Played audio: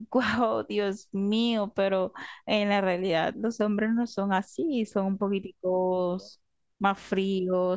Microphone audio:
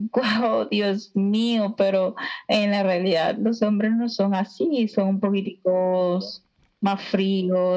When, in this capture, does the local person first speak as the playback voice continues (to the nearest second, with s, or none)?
none